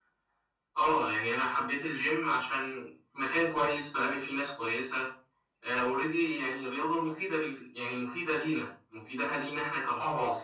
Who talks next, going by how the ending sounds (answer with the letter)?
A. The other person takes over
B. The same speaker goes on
A